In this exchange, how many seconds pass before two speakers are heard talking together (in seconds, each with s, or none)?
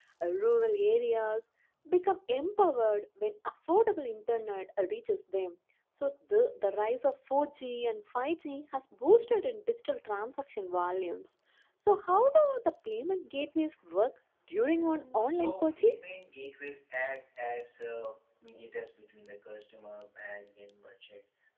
14.5 s